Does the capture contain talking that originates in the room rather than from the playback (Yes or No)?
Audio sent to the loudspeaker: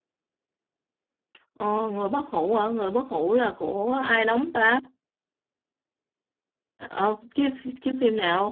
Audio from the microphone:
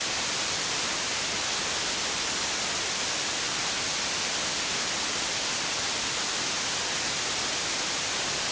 No